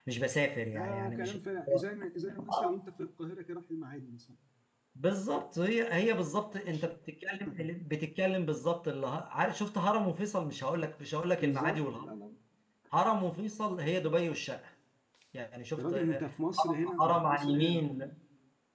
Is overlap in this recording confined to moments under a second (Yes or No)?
No